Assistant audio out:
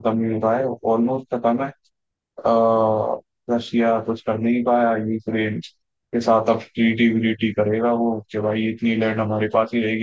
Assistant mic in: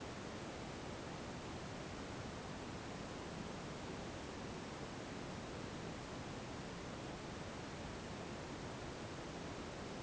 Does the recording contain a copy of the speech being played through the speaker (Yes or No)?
No